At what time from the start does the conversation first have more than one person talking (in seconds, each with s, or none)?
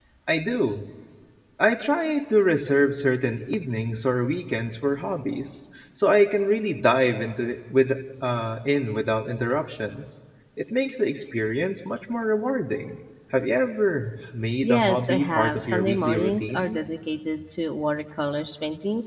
14.6 s